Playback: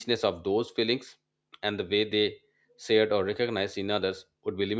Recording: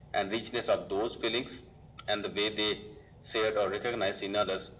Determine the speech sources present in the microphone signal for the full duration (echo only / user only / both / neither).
echo only